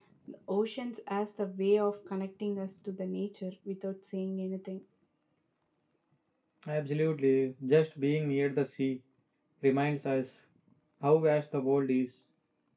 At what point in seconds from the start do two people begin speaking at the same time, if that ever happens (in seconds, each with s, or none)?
none